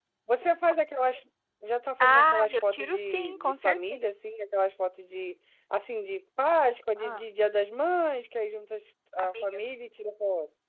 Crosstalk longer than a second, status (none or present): present